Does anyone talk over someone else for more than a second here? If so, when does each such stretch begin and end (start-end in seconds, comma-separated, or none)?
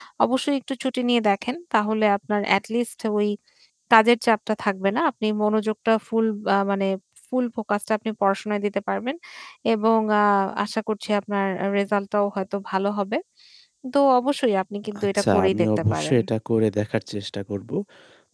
15.0-16.2